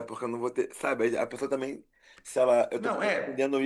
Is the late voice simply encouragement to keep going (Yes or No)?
Yes